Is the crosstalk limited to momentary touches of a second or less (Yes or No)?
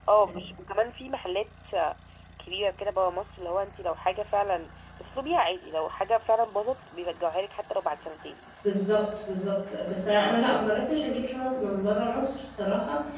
Yes